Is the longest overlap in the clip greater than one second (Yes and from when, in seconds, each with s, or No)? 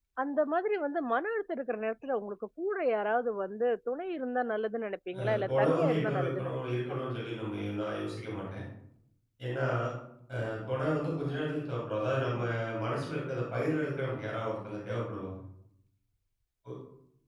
Yes, from 5.2 s